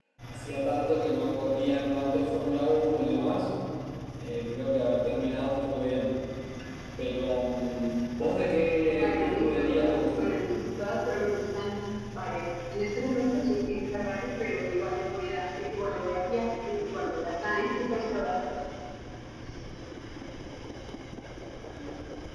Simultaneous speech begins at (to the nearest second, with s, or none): 9 s